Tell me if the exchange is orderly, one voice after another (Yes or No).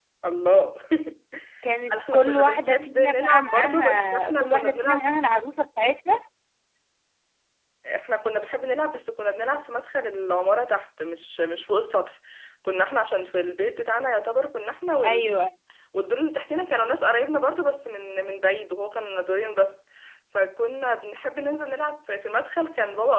No